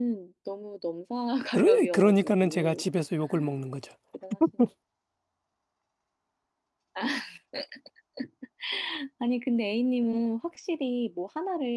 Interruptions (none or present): present